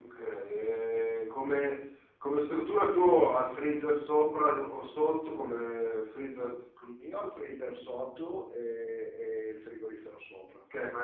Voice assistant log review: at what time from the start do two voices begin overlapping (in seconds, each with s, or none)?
none